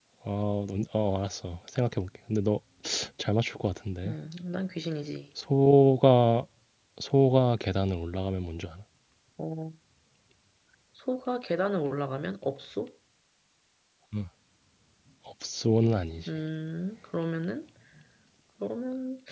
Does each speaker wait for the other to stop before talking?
Yes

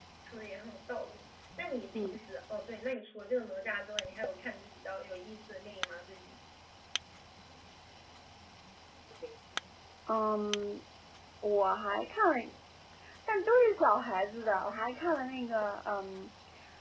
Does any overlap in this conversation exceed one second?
No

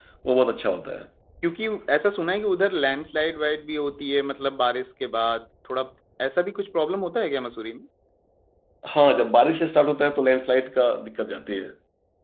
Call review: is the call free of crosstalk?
Yes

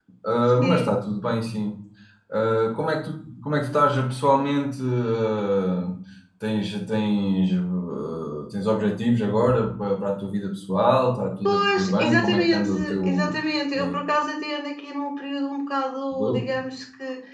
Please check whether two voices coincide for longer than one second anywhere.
Yes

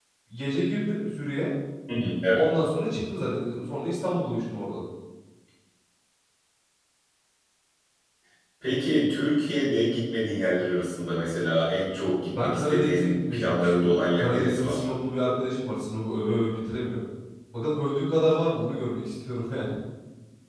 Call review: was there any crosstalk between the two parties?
Yes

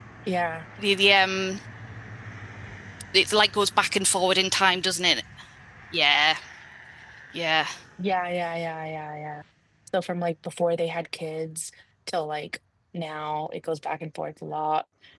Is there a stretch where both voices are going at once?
No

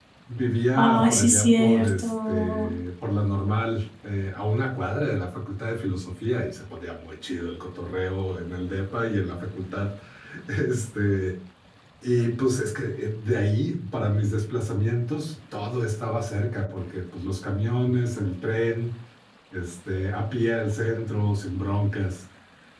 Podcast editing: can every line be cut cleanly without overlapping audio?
No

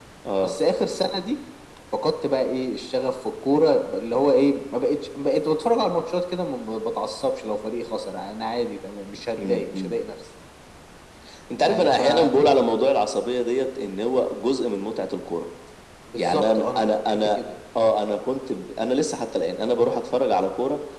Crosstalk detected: Yes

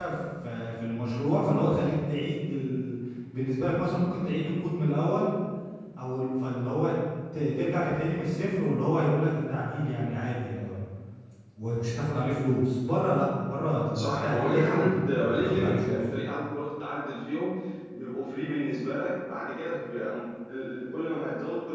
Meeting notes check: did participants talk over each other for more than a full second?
Yes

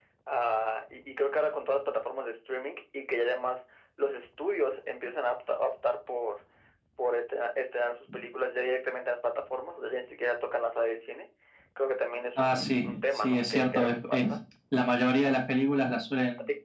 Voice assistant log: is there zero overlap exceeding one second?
No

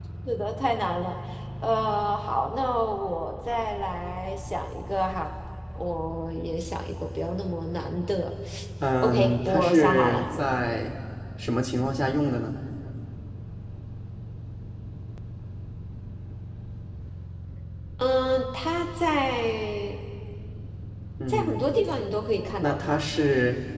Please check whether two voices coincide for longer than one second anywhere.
Yes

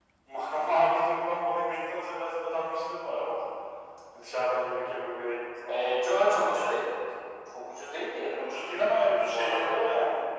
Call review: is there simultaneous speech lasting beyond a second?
No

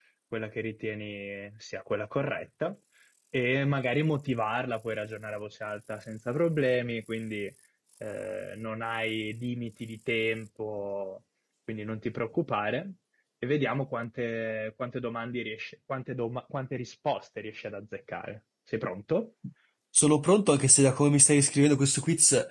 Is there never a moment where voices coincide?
Yes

